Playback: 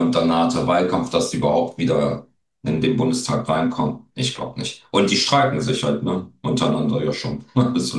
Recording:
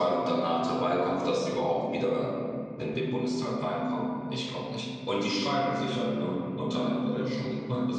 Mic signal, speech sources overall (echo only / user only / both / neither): both